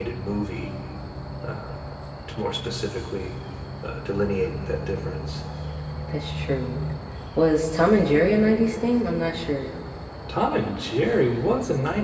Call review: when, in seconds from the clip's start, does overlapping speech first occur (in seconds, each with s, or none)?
none